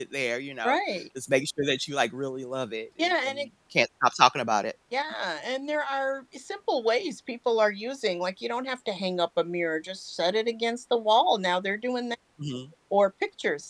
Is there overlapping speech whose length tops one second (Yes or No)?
No